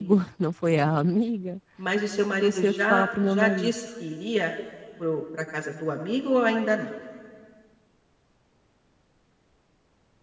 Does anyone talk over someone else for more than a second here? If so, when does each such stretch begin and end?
2.4-3.7

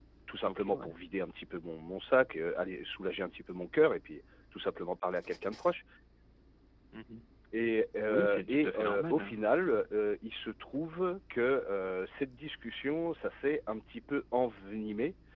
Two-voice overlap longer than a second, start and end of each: 8.1-9.8

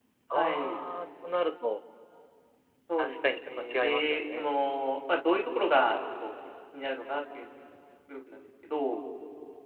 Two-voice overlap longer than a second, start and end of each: 3.0-4.6

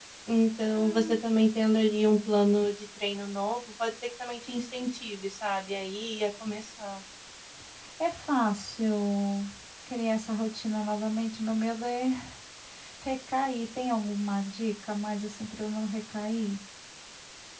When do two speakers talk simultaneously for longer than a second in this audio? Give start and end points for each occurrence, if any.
none

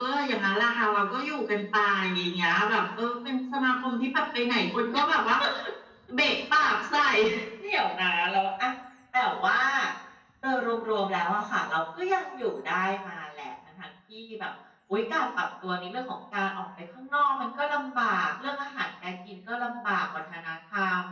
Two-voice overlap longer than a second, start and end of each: none

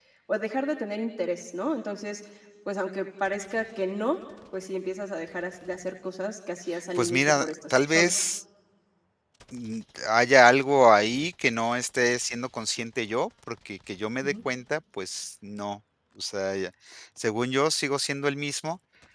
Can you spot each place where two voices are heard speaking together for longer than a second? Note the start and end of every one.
7.0-8.2

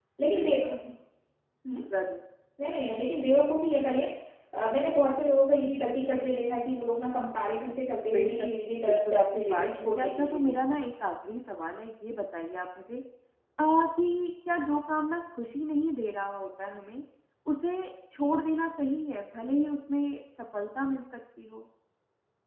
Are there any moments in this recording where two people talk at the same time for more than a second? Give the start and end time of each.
8.9-10.6

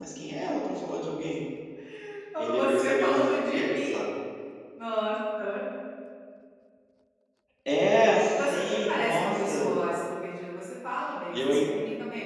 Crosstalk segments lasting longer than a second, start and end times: 2.4-3.9, 8.3-9.8

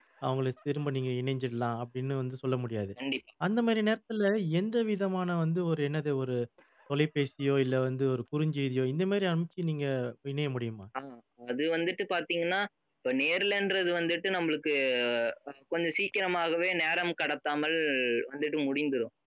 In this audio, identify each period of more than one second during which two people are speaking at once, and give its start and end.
none

